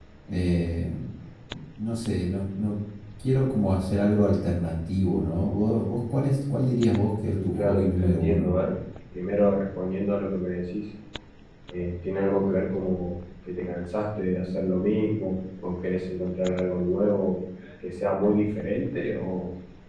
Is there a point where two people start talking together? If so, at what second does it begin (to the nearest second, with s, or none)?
7 s